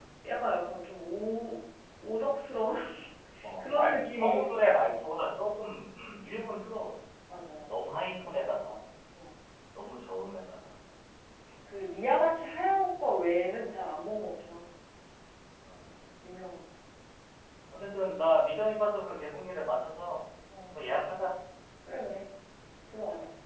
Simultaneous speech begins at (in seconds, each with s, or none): 3.6 s